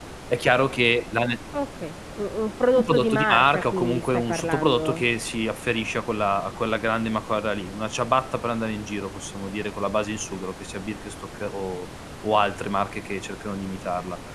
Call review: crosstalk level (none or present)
present